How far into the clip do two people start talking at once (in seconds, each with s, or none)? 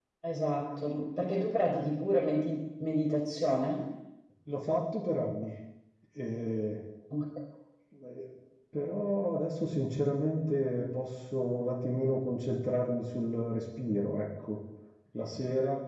none